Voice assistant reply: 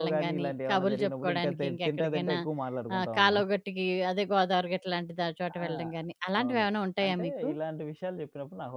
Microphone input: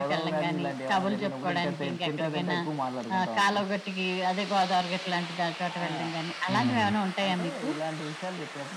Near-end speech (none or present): present